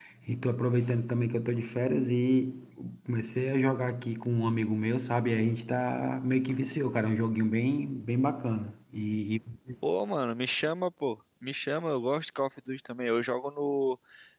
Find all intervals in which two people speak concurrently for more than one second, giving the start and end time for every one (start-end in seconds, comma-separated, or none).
none